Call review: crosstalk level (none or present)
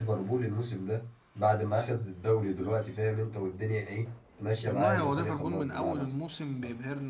present